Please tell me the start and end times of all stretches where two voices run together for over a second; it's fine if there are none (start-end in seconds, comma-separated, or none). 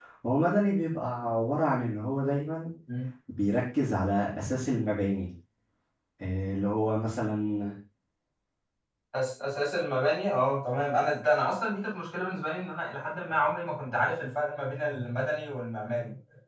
none